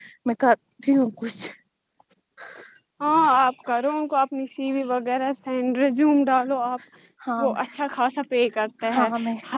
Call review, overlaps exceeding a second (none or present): none